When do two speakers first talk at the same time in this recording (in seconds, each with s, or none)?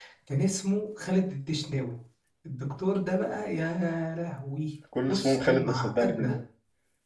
4.9 s